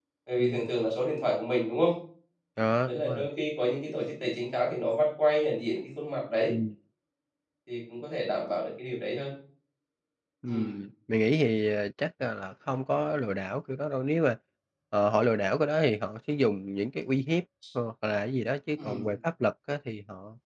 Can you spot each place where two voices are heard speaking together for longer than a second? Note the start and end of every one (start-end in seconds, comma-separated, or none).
none